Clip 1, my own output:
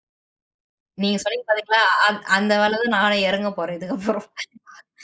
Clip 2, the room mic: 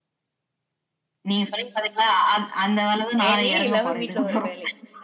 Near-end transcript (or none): வேலையே இல்லாம வீட்ல ஒரு வேலை.